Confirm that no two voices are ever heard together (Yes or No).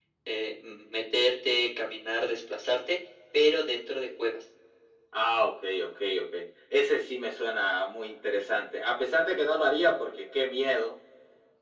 Yes